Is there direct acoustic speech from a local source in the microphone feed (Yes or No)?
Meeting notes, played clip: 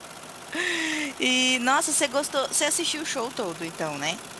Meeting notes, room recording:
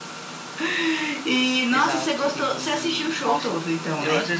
Yes